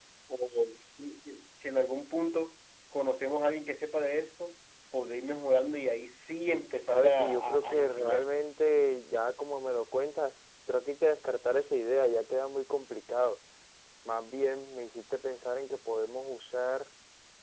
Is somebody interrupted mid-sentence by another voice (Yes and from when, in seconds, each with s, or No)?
Yes, from 6.9 s